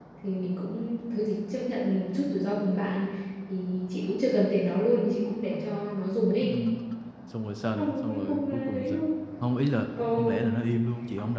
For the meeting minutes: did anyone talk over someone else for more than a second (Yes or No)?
Yes